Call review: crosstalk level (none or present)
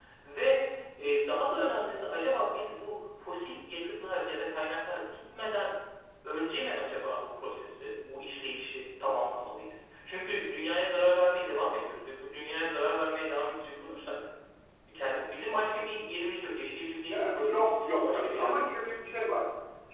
present